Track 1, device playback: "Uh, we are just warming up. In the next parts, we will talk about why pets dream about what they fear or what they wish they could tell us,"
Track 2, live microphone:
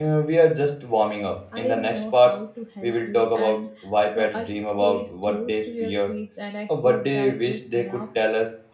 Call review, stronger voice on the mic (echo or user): echo